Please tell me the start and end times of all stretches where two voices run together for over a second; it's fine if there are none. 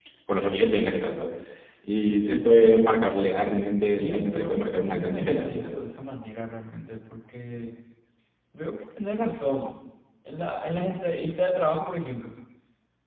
4.0-5.6

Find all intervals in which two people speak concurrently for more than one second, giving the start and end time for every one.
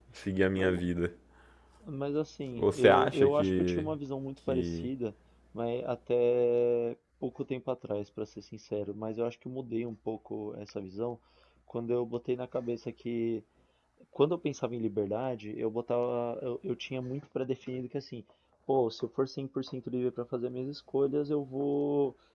2.5-3.9

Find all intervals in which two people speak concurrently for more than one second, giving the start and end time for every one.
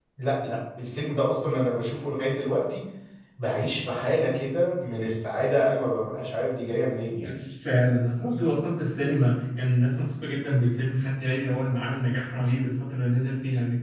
none

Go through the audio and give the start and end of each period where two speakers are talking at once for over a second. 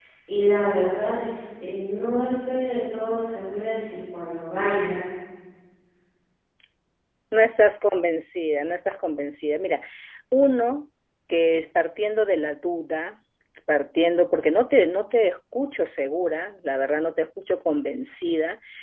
none

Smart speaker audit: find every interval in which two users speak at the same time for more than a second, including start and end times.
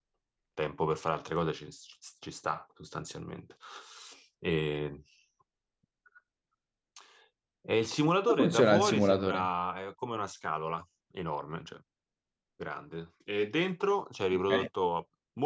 8.3-9.5

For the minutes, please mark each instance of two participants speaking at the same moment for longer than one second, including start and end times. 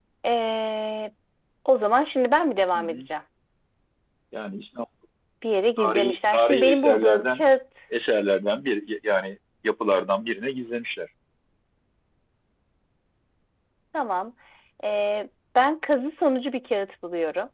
5.8-7.4

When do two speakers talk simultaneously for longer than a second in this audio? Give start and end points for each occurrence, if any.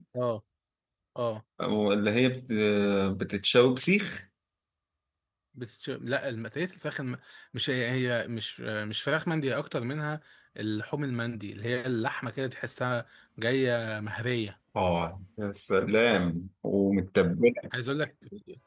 none

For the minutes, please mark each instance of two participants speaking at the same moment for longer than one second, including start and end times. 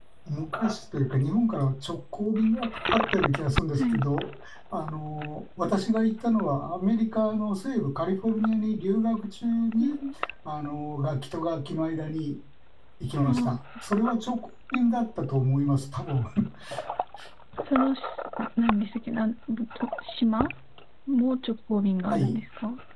none

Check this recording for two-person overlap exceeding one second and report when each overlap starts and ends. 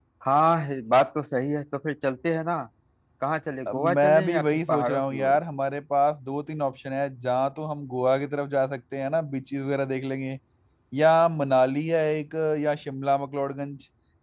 3.7-5.4

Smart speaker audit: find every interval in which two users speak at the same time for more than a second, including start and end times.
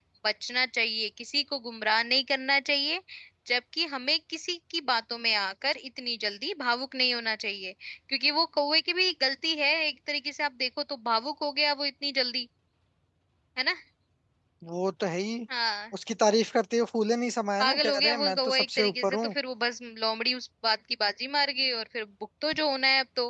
17.6-19.3

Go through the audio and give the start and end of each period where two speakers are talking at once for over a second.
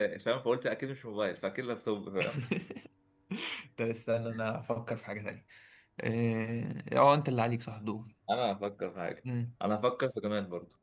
none

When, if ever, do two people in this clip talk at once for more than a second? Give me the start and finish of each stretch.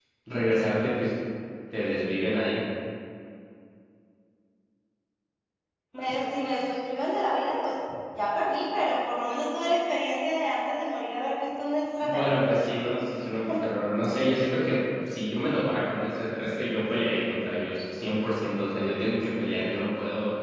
none

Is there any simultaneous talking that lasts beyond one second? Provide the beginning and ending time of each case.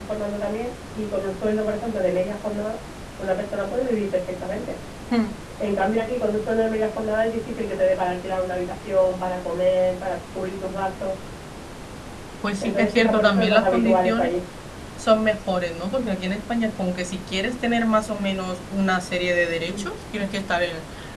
12.6-14.3

